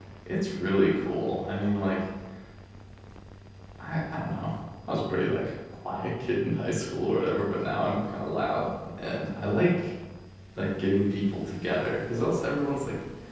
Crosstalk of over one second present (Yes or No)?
No